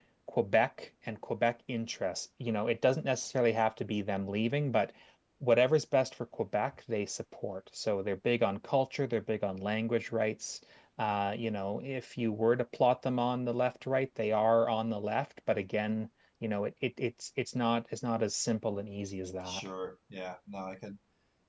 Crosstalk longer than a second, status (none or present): none